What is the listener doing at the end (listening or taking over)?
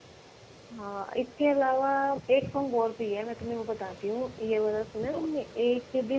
listening